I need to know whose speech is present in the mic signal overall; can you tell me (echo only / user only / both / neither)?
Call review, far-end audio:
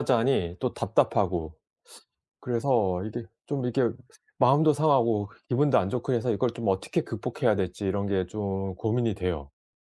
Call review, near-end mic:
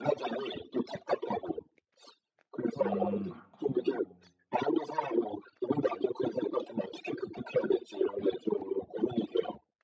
both